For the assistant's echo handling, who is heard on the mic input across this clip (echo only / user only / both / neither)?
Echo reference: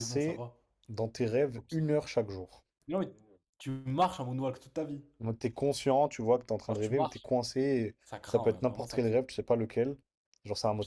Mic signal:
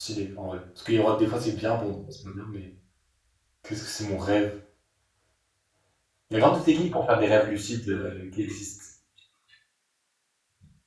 user only